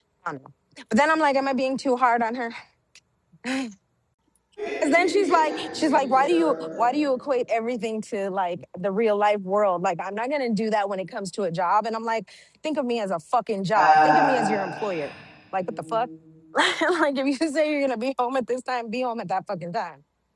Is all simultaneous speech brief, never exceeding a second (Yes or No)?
No